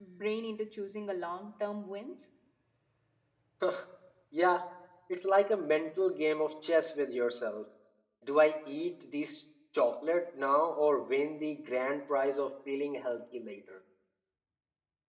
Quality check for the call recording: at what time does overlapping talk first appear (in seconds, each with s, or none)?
none